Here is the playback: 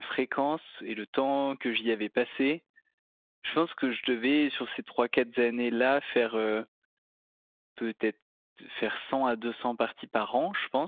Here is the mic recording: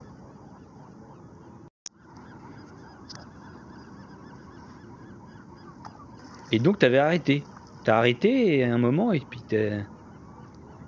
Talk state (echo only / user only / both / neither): user only